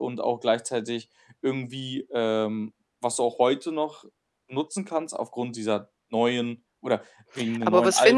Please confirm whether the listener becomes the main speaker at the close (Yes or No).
Yes